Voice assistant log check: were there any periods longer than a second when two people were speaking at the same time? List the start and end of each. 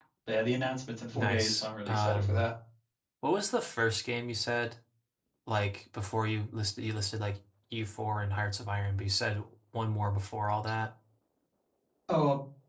1.1-2.5

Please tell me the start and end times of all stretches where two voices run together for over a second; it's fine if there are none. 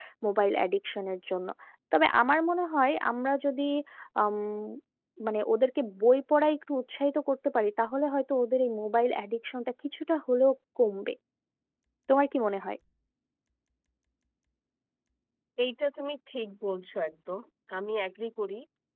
none

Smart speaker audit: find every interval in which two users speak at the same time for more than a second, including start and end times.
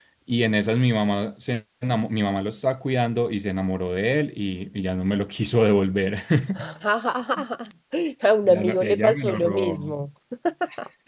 8.4-9.9

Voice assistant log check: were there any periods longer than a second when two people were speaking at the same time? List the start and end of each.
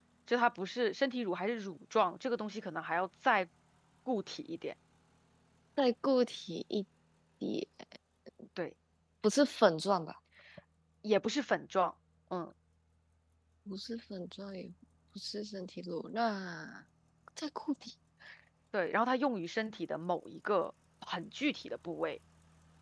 none

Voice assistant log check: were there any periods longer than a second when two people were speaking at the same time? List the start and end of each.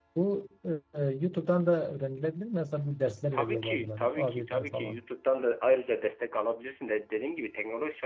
3.3-5.0

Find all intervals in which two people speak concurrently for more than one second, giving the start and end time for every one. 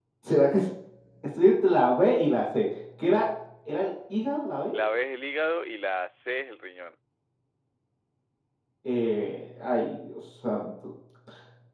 none

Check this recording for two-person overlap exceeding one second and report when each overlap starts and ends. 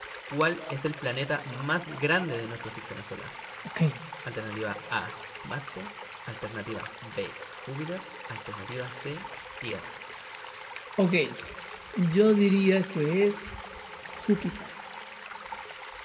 none

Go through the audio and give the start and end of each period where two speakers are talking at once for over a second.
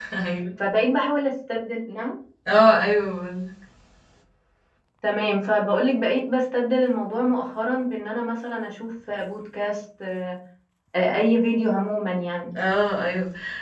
none

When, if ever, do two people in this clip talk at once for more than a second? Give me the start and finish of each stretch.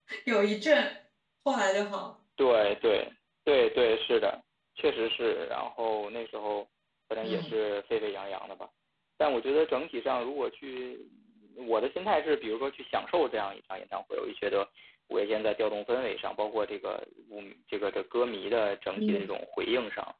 none

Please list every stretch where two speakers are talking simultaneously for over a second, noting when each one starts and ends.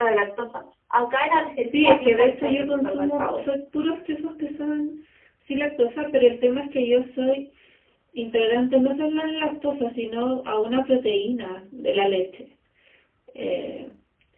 1.6-3.5

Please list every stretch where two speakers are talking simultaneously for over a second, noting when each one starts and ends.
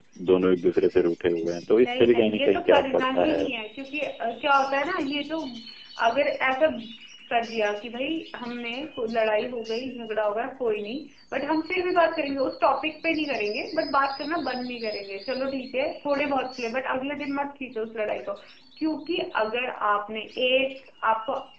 1.8-3.4

